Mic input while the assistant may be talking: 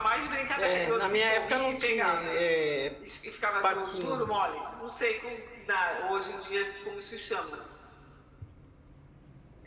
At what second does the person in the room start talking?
0.6 s

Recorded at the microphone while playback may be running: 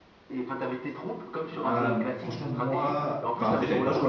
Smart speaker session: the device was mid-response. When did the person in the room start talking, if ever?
1.5 s

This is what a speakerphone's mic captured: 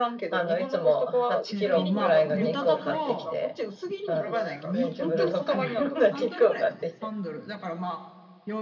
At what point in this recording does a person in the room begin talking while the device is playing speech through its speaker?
1.5 s

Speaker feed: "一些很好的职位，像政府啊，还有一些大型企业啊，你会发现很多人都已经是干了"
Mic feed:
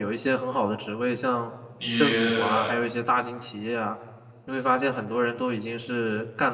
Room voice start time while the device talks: 1.8 s

